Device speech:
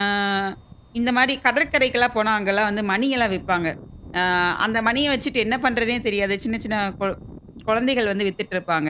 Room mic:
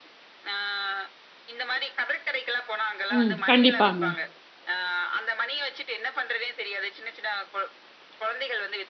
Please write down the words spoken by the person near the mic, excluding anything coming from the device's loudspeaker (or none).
ம். கண்டிப்பாங்க.